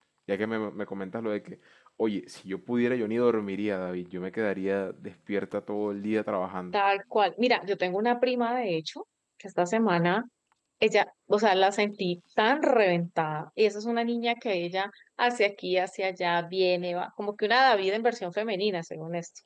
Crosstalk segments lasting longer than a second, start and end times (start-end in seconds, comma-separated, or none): none